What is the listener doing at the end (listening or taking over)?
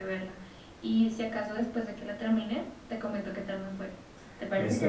taking over